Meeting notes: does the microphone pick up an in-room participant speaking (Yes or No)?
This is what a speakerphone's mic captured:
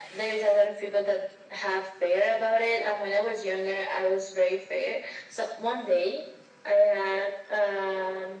No